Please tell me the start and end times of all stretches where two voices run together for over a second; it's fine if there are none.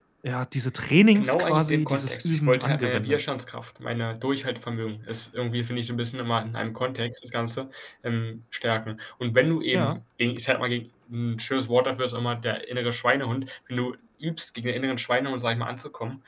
1.1-3.2

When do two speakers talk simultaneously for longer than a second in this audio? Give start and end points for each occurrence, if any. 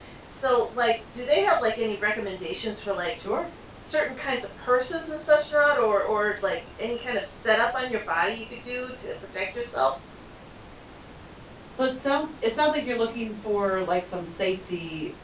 none

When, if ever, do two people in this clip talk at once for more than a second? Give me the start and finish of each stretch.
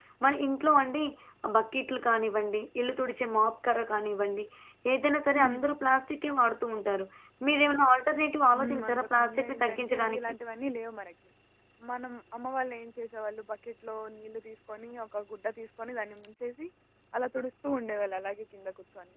8.5-10.2

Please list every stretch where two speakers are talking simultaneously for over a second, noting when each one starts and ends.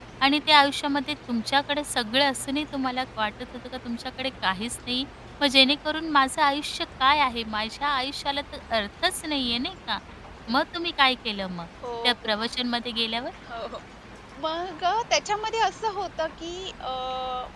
none

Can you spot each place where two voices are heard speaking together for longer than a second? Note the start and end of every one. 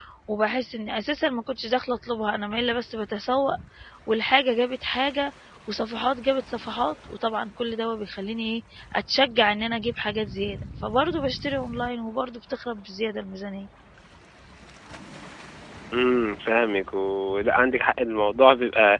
none

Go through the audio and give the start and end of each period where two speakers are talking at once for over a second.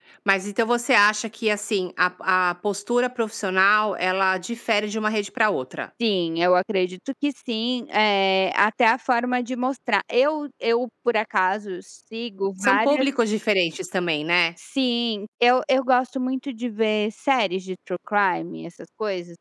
none

